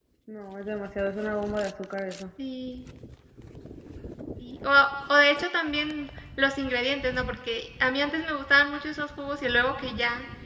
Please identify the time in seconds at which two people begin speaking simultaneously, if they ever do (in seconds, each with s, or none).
none